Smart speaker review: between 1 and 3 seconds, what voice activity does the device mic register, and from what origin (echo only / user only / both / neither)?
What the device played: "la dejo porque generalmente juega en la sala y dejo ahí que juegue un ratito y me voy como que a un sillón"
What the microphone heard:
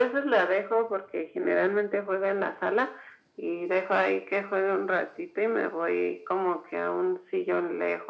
echo only